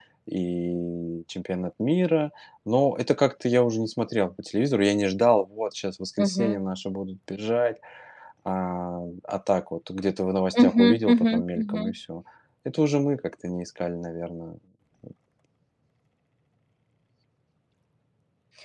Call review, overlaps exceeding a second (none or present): present